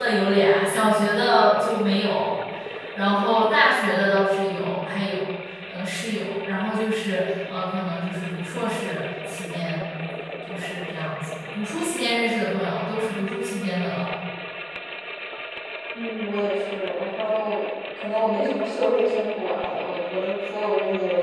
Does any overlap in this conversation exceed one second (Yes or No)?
No